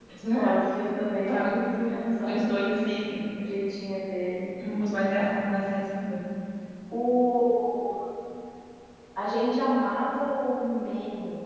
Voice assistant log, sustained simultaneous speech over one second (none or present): none